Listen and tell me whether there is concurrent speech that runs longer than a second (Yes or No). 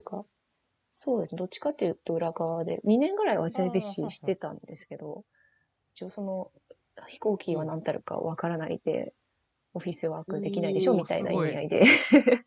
Yes